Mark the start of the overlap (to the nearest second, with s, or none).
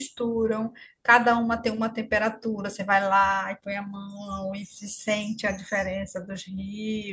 none